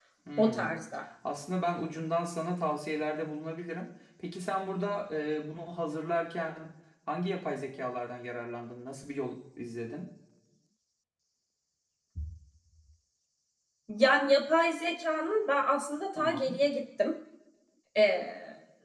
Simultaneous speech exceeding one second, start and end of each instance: none

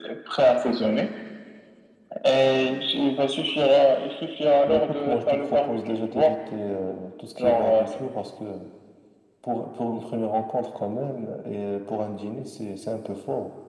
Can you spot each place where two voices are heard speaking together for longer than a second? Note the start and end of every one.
4.7-6.3

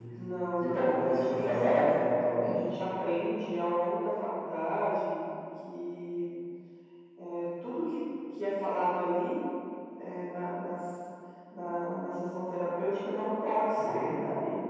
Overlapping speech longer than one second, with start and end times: 0.6-2.0

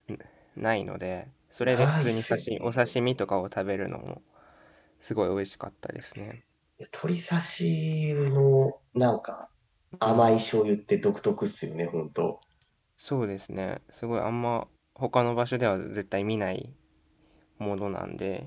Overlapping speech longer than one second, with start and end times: 1.6-2.8

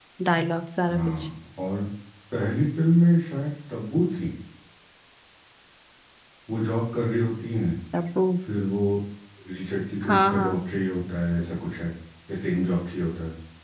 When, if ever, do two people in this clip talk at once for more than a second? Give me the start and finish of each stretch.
none

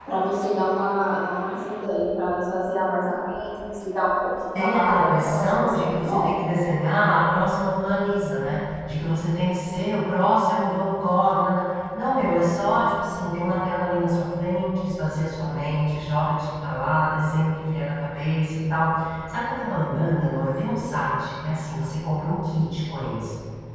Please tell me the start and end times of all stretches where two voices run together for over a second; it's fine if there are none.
4.5-6.3

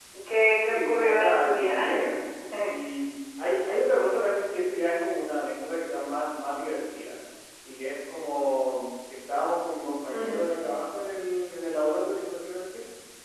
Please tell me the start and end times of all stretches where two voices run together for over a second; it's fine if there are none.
0.6-1.9

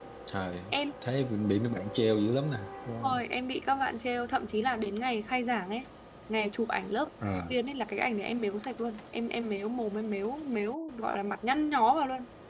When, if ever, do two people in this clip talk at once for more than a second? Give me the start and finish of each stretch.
none

